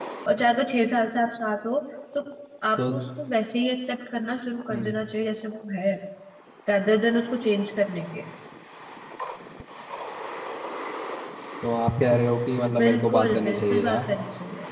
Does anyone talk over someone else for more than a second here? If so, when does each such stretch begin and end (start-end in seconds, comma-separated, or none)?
12.8-14.1